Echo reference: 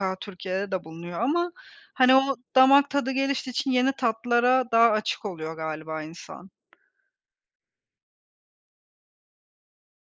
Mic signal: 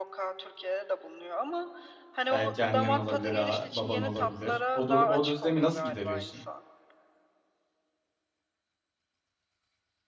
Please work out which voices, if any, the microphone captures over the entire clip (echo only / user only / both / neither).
both